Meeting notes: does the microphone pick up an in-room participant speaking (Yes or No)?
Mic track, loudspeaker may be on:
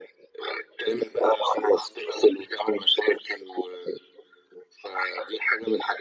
No